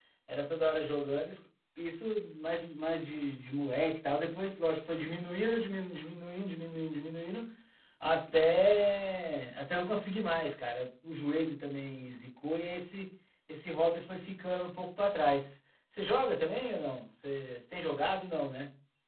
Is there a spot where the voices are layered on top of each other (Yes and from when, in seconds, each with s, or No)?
No